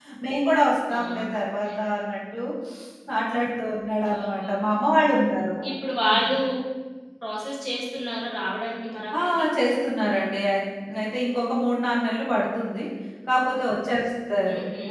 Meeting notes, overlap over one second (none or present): none